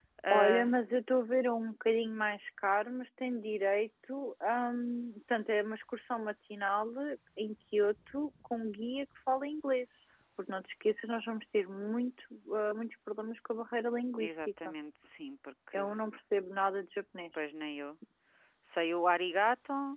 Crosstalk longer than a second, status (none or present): none